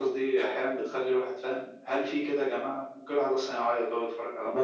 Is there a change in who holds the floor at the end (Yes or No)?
Yes